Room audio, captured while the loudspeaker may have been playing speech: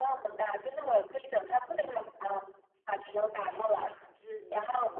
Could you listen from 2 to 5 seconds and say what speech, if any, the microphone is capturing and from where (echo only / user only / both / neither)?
both